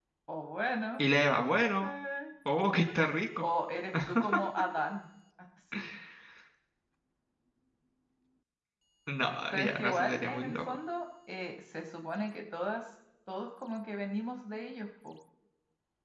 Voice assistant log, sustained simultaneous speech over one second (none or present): present